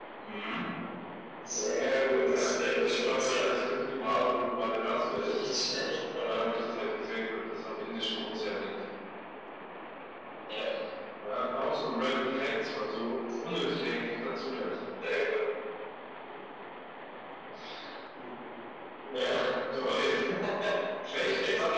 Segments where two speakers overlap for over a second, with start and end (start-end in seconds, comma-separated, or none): 2.2-3.5